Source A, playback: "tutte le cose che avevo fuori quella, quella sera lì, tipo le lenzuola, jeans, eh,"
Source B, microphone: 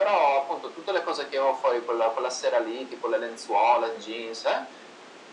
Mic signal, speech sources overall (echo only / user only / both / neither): echo only